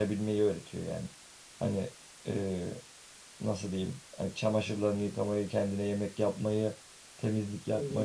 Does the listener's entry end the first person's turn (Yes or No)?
Yes